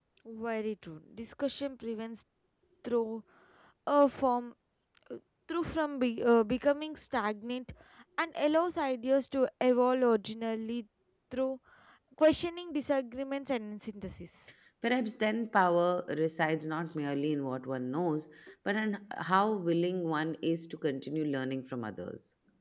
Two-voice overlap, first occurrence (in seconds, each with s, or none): none